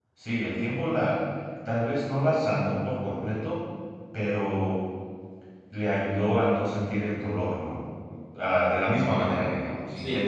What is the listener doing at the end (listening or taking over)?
listening